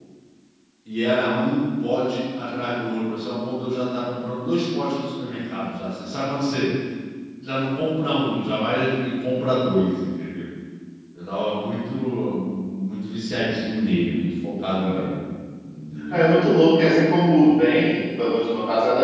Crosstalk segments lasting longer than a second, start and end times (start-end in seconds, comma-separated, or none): none